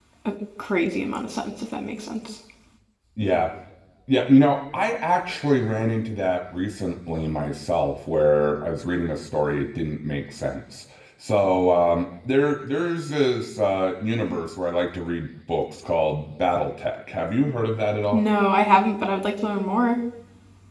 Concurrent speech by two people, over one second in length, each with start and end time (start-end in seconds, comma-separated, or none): none